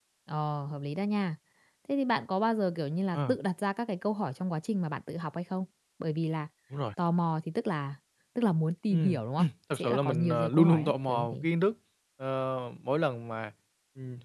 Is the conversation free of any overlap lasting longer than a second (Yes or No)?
No